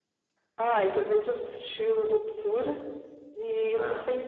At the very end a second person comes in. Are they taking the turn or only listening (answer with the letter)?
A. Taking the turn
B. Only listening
B